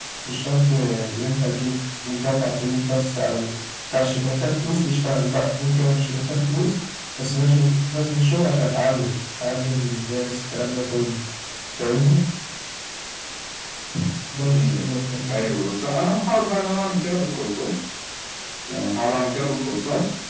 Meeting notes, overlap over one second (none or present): none